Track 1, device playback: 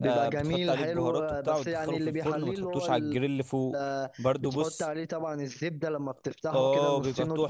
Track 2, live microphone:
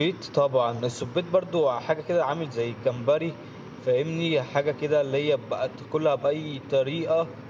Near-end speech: present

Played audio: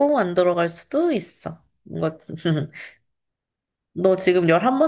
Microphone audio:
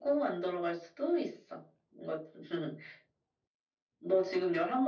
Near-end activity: none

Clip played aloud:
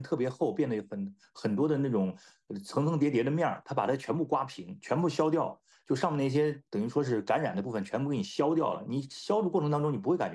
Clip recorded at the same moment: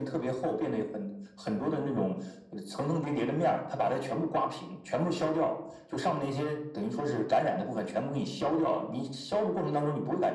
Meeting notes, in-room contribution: none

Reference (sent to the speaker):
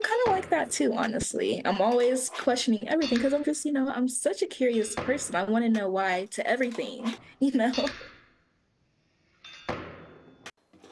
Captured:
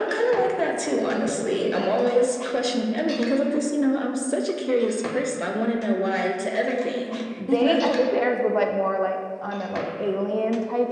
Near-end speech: present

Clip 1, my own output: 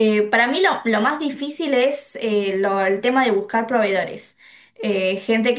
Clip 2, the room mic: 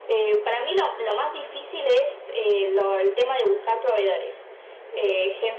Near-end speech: none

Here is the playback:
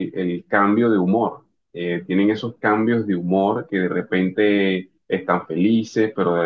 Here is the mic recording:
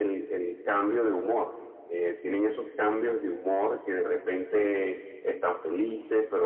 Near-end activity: none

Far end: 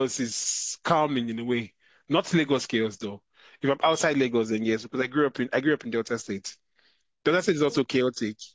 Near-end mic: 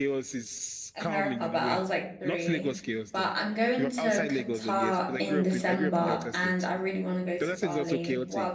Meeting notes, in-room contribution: present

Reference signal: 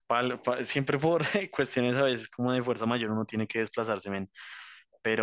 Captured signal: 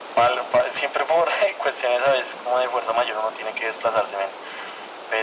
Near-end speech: none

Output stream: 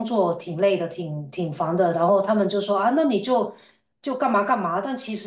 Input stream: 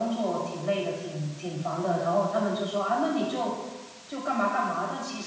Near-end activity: none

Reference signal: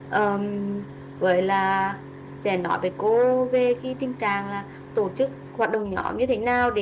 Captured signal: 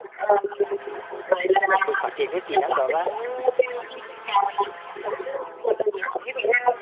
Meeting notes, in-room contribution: present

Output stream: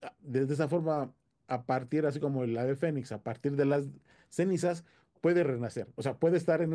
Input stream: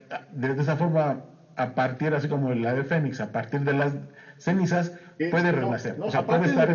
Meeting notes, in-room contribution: present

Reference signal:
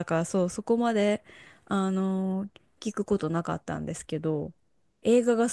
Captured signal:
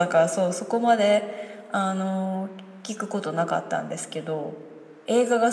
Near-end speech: none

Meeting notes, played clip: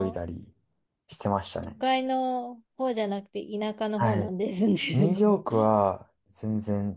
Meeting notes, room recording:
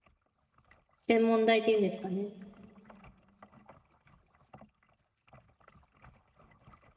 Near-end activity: present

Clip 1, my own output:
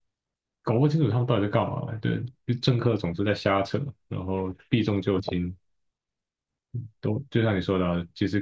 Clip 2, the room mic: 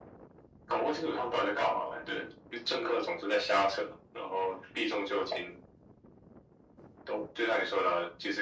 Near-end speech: none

